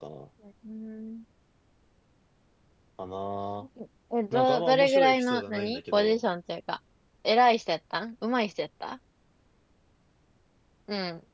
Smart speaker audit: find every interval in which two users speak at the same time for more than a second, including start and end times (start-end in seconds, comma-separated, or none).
4.3-6.2